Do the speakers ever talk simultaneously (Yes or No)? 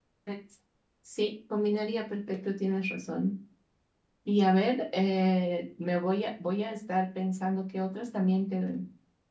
No